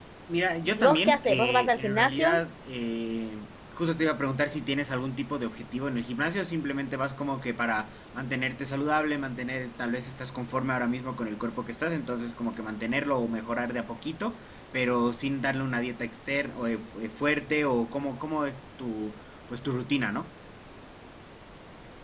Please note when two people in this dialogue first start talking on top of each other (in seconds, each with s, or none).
0.6 s